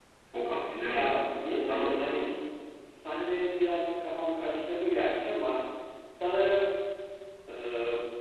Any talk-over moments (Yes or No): Yes